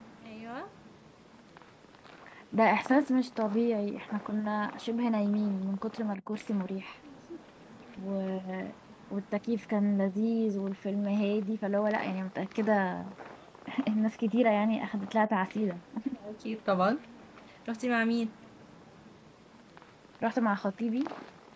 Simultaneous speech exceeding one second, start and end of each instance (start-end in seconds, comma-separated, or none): none